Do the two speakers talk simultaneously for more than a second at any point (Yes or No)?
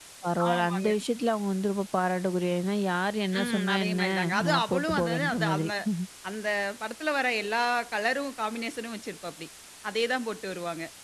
Yes